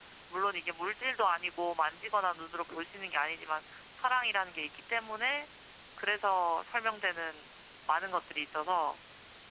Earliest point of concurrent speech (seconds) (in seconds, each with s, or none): none